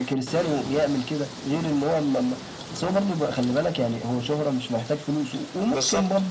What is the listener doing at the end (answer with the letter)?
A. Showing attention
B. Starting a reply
A